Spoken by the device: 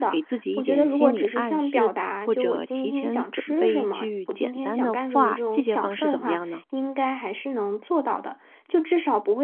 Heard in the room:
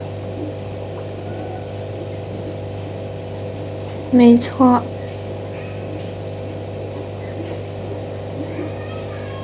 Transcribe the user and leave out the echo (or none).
没错，